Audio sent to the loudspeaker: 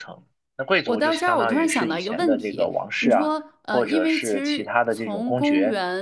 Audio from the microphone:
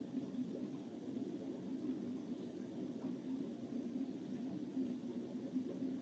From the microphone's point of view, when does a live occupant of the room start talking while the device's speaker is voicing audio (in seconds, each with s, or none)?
none